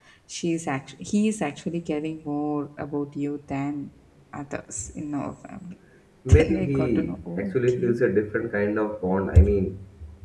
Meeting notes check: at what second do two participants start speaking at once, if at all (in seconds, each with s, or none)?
6.3 s